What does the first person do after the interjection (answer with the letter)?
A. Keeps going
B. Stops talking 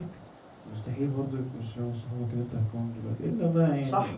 B